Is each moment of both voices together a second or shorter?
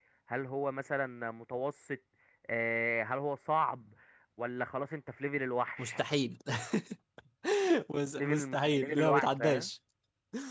No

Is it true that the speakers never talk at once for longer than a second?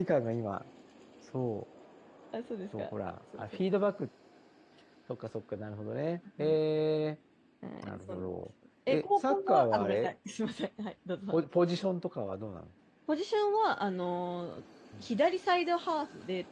No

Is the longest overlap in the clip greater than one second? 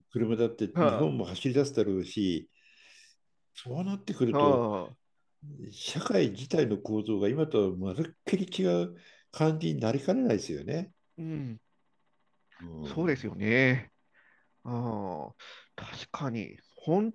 No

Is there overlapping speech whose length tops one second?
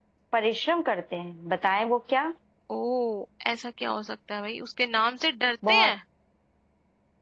No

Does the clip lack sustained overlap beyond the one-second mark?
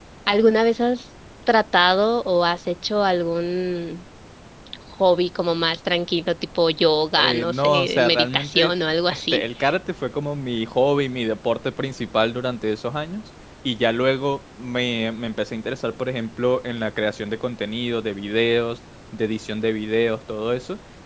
No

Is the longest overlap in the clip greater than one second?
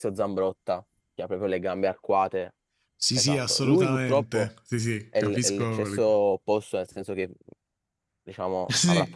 Yes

